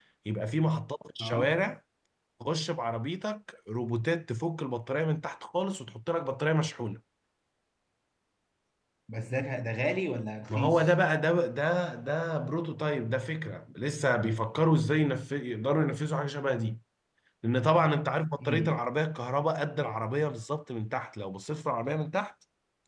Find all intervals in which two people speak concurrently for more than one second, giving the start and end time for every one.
none

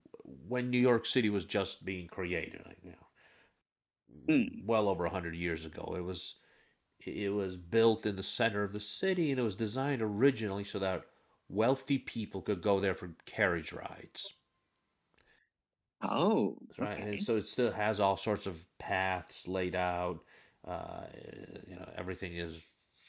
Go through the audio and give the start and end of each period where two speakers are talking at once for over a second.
none

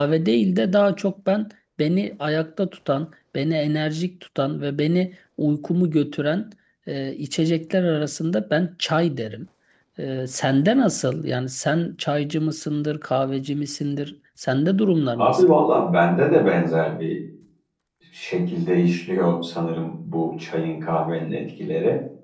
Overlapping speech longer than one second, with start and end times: none

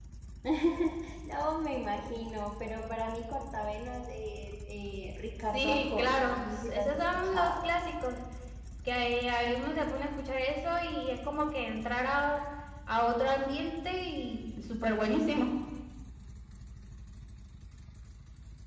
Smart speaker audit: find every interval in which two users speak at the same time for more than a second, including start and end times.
5.5-7.6

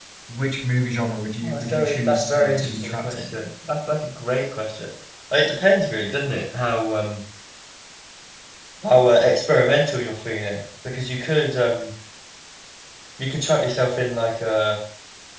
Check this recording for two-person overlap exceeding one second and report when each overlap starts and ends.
1.4-3.4

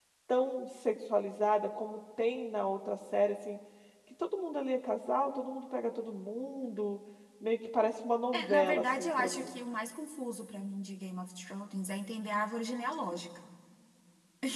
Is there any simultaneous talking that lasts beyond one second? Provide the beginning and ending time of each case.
8.3-9.6

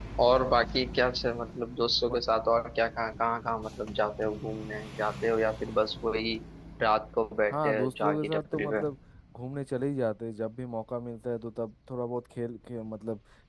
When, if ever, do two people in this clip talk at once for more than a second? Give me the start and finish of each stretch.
7.5-8.8

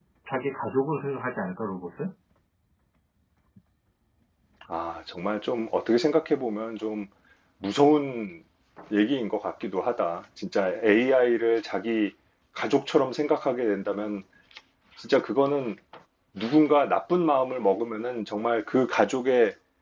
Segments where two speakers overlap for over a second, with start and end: none

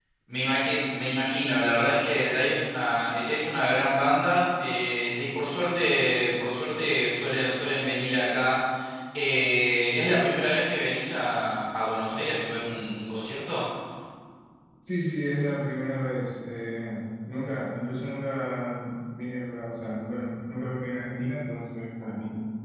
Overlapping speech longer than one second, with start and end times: none

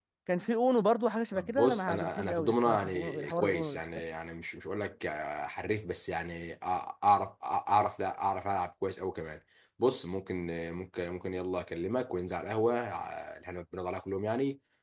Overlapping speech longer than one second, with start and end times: 1.3-4.0

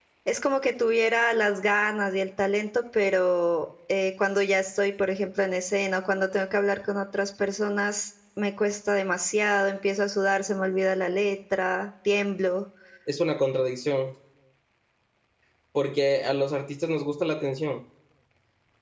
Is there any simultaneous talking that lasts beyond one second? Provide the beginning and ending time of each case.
none

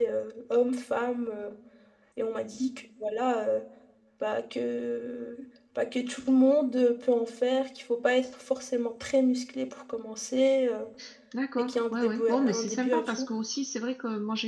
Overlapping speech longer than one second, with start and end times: 11.6-13.3

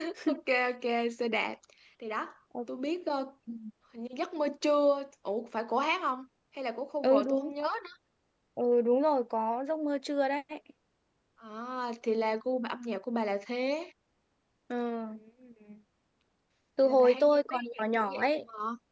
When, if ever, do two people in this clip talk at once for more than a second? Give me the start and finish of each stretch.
16.8-18.4

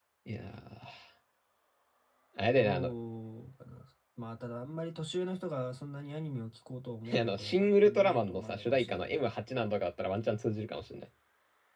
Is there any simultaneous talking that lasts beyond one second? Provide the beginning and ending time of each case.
7.2-9.2

